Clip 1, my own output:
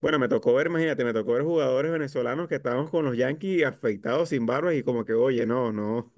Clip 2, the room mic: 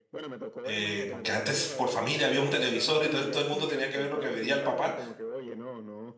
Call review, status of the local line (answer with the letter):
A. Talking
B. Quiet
A